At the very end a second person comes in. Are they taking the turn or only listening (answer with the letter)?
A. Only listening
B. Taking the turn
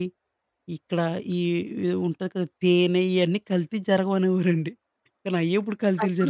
B